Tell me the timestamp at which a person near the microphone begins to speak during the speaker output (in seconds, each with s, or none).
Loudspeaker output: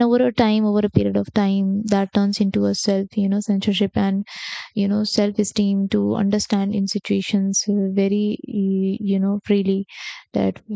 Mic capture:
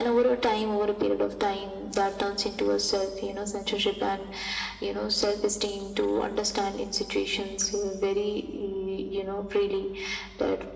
none